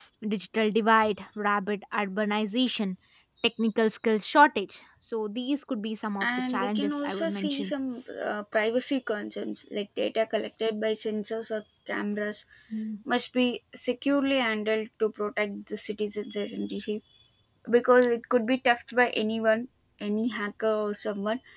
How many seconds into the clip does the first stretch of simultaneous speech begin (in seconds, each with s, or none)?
6.2 s